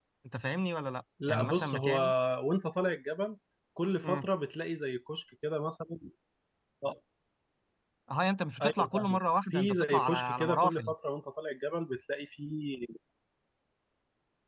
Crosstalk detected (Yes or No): Yes